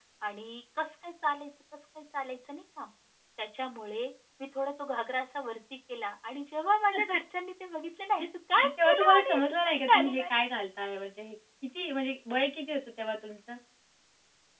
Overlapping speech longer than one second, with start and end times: 8.6-10.2

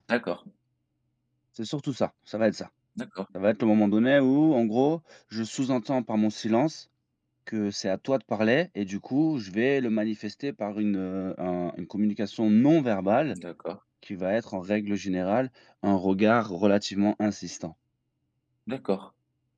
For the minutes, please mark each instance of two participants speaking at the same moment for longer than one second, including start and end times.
none

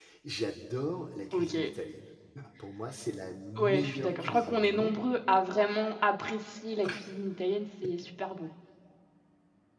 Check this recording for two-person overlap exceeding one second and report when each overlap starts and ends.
3.6-5.0

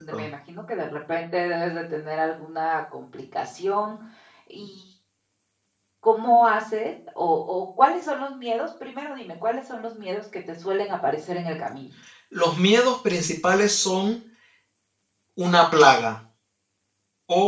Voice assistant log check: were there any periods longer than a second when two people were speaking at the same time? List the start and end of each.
none

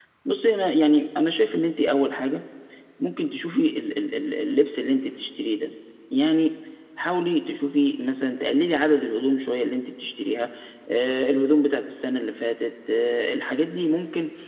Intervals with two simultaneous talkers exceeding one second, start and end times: none

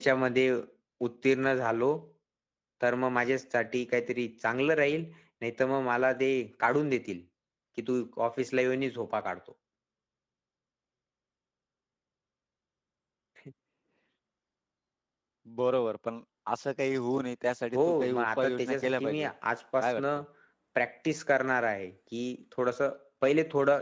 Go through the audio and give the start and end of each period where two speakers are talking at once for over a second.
17.7-19.3

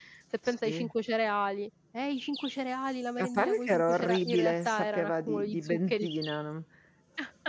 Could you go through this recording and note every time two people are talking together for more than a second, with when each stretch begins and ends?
3.2-6.1

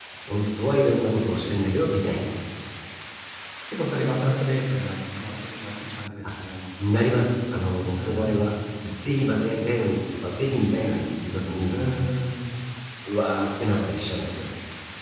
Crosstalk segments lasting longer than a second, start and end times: none

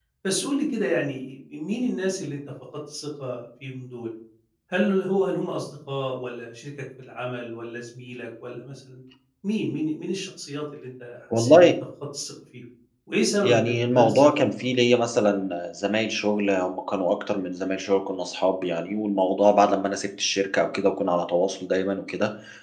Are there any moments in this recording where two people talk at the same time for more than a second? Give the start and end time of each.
13.4-14.8

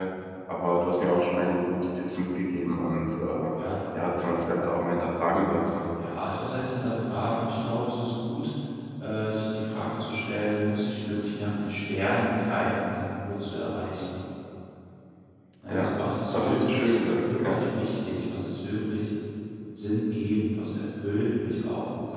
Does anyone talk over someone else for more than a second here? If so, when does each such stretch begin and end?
16.3-17.6

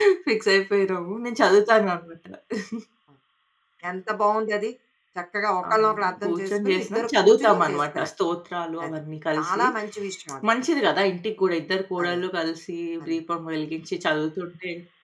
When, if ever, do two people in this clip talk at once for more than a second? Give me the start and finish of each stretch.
5.7-8.1

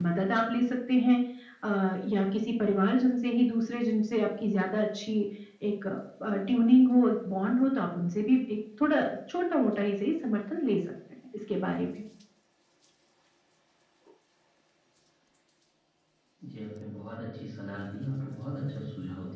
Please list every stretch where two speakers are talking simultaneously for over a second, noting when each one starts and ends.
none

